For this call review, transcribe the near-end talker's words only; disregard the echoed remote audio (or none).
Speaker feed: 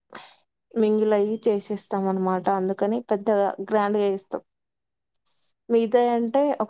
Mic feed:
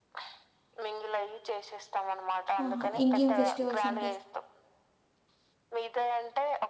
ఆహా ఇంకేం ఫెస్టివల్స్ ఉంటయి.